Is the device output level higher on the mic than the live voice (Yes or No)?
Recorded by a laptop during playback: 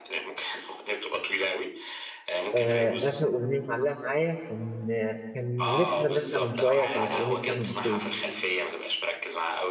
No